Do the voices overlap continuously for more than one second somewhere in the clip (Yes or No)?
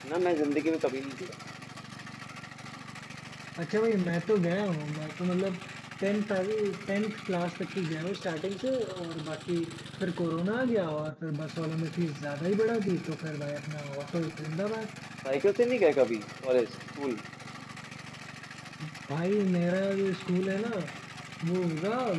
No